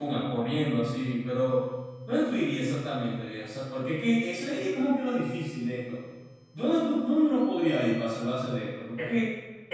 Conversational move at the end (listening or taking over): taking over